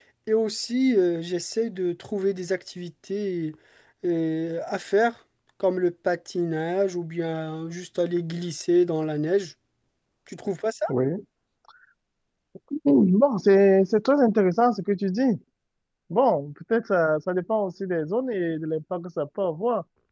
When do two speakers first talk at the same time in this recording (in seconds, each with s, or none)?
none